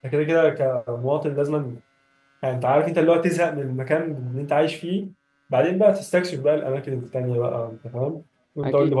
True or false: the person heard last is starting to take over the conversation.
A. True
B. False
A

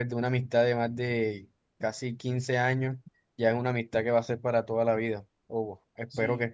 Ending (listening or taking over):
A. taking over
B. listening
A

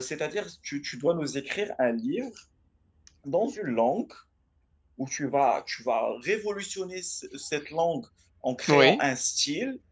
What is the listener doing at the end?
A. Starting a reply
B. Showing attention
B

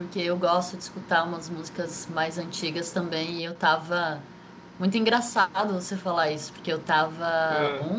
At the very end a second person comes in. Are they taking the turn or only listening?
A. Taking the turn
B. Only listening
B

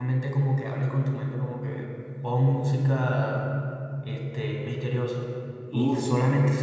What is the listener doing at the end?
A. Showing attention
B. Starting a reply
A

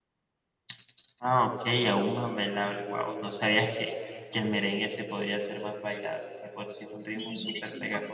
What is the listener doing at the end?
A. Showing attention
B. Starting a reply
B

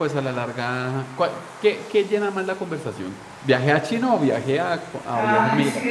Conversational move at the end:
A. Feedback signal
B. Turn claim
B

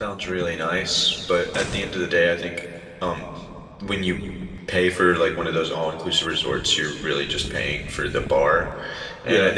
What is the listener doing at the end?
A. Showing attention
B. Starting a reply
A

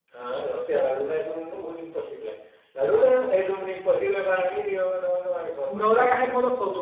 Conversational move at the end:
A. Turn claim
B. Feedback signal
A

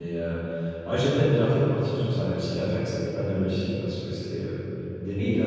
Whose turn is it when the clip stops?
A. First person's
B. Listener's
A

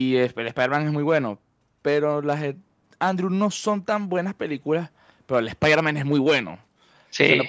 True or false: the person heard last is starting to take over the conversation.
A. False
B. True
A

